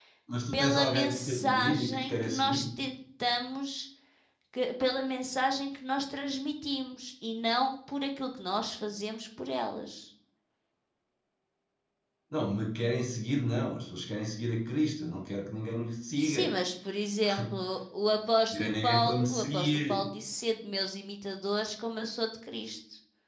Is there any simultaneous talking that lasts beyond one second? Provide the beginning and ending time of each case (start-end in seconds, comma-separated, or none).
0.5-2.6, 18.5-20.1